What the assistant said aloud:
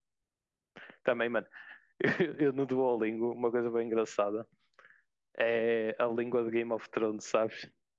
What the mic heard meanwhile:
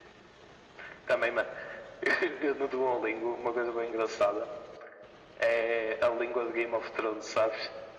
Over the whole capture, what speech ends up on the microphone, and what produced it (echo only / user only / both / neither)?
echo only